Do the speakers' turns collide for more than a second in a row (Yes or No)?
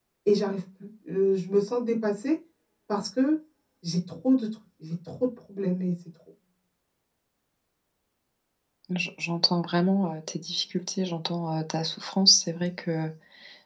No